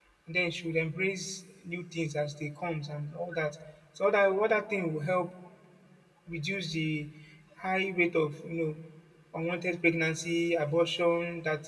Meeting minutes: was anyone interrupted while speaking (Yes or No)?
No